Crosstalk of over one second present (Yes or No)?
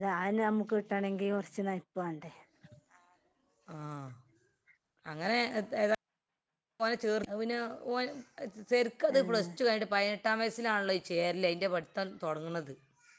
No